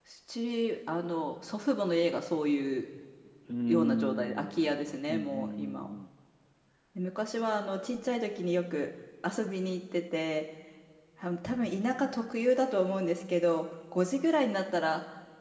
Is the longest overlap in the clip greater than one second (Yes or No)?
Yes